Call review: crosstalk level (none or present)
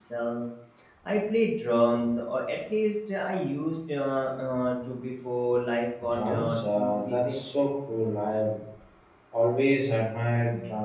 present